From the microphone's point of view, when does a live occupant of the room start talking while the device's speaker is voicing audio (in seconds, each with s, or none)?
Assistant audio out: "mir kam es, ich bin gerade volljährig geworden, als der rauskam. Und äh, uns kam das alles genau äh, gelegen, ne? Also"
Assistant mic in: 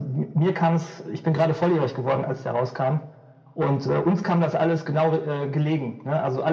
none